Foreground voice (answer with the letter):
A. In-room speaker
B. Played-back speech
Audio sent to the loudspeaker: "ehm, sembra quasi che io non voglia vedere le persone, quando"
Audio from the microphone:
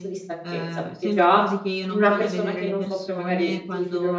A